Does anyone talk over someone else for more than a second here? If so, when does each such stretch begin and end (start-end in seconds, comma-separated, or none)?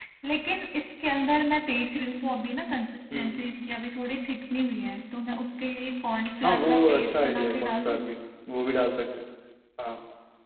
6.4-8.0